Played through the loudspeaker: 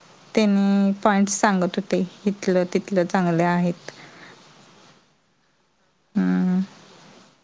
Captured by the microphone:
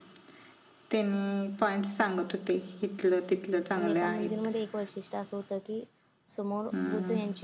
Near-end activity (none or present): present